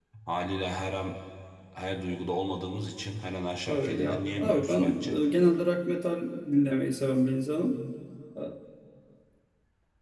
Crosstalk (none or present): present